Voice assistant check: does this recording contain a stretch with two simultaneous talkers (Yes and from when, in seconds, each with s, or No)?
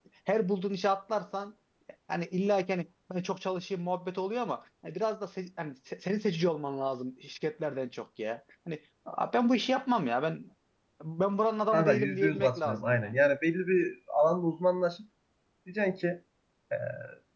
Yes, from 11.7 s